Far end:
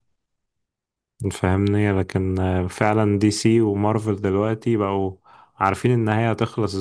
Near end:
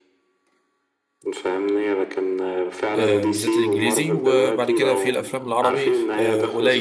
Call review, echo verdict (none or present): present